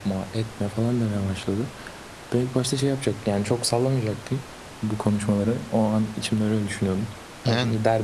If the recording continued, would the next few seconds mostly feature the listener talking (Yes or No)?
No